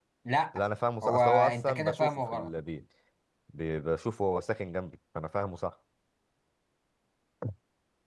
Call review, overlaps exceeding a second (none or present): present